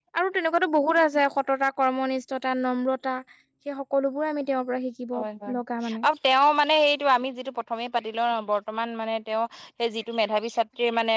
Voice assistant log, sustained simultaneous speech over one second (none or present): none